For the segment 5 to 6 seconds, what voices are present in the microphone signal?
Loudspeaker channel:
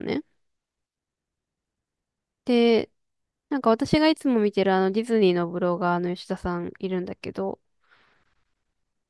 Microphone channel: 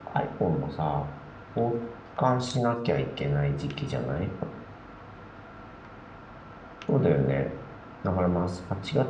neither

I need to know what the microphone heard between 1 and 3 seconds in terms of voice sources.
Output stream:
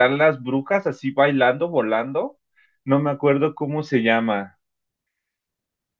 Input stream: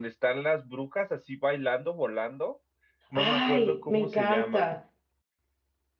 echo only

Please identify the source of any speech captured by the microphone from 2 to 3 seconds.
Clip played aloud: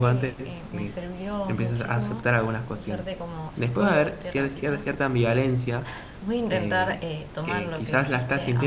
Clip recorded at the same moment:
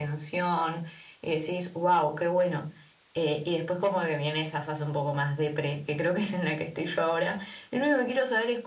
user only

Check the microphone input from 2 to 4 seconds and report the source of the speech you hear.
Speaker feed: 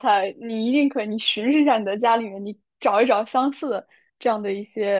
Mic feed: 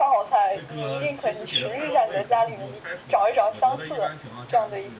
both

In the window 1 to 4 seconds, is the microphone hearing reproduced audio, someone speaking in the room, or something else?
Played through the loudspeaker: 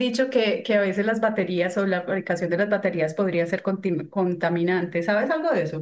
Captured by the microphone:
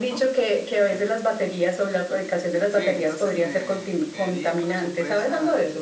both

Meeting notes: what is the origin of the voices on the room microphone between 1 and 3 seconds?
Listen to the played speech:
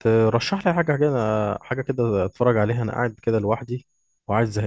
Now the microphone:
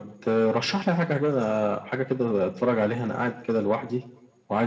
echo only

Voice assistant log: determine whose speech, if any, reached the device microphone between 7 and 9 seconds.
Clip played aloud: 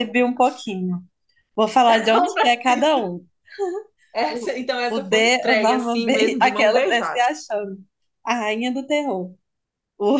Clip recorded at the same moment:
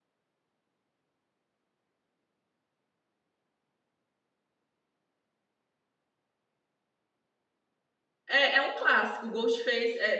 user only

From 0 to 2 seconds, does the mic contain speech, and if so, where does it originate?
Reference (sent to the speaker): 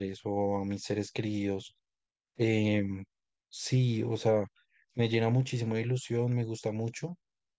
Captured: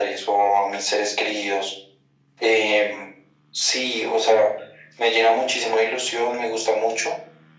echo only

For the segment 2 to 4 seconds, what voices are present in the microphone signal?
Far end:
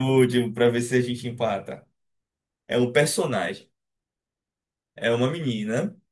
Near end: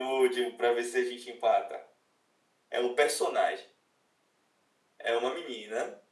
echo only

